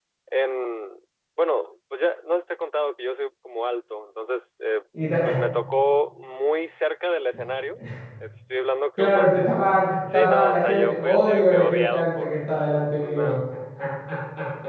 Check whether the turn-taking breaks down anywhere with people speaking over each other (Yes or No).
Yes